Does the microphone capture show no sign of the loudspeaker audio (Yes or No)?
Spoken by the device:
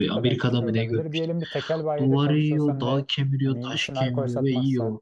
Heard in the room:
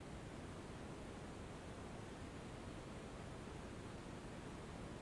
Yes